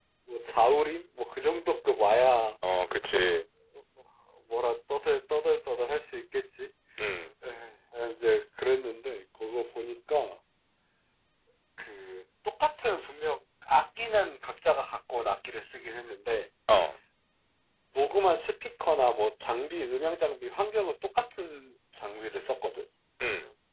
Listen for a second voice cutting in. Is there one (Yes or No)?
No